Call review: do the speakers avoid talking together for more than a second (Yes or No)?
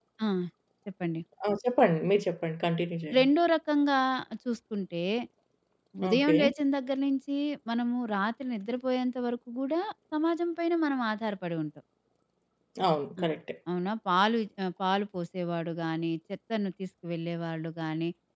Yes